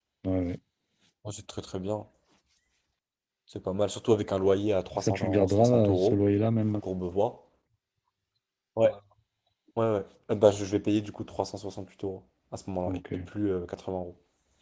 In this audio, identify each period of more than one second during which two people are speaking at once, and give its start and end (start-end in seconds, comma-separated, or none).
4.9-6.2